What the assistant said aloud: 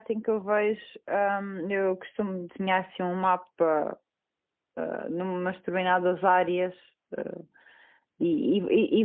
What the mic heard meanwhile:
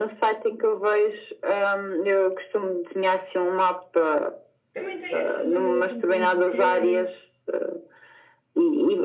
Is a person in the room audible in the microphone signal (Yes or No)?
Yes